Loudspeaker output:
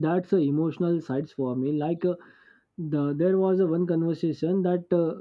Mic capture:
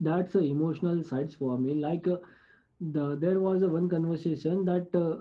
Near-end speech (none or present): none